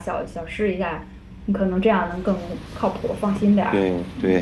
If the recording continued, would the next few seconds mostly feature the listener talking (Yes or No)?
Yes